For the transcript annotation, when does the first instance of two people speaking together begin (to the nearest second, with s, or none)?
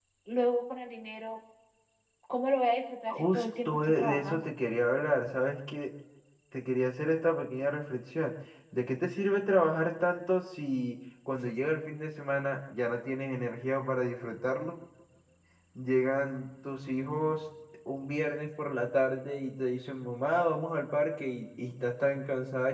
3 s